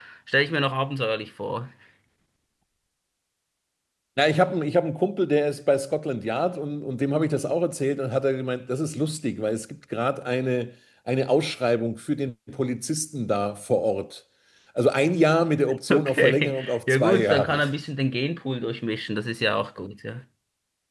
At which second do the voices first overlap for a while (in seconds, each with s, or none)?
15.9 s